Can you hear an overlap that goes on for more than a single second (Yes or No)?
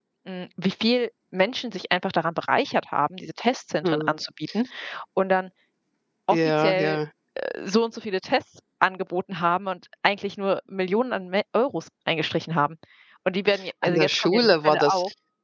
Yes